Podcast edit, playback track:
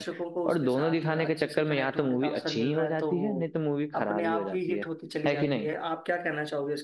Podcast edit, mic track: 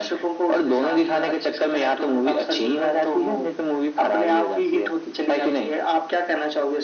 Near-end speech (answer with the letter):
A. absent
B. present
A